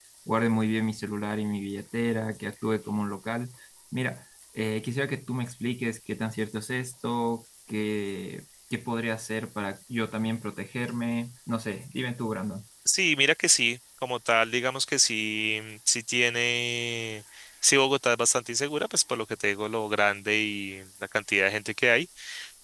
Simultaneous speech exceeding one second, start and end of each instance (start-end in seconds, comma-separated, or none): none